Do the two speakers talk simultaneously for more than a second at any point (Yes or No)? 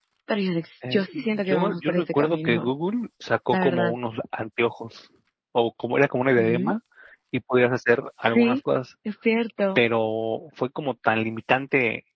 Yes